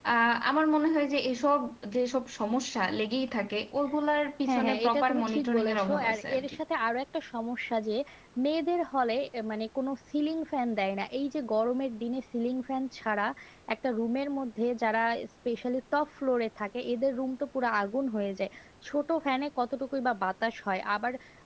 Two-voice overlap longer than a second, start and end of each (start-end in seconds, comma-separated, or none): 4.5-6.6